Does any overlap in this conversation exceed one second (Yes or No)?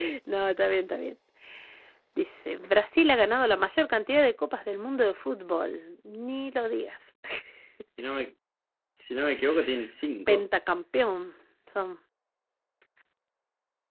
No